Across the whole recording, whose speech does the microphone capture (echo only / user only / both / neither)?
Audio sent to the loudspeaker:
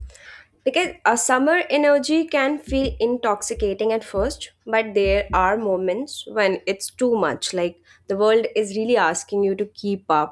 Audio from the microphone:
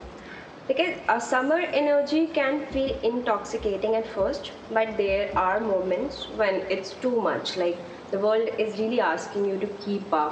echo only